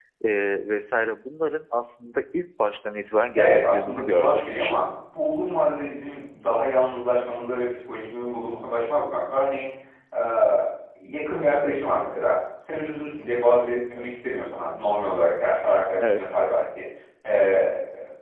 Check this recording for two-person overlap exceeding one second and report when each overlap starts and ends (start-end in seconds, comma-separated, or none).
3.3-4.7